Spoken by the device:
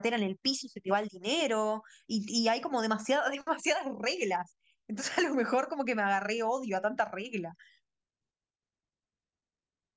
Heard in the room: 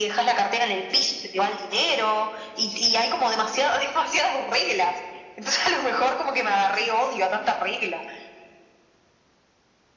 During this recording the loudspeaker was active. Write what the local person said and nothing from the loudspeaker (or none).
none